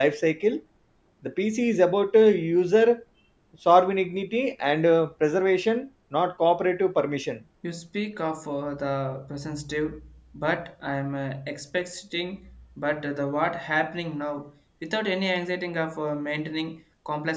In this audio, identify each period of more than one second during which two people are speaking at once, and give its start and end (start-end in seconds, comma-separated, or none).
none